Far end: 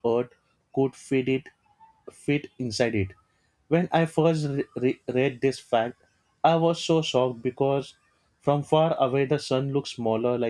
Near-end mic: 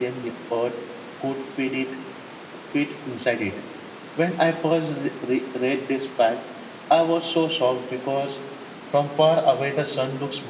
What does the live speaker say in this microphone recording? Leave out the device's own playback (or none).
none